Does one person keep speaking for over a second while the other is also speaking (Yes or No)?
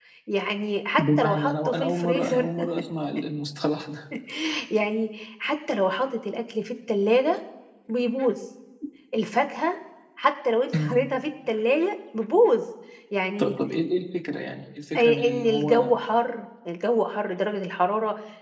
Yes